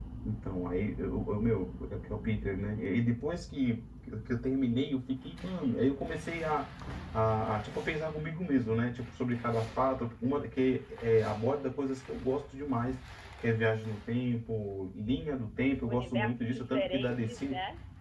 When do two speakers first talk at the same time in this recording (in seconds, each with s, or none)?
15.8 s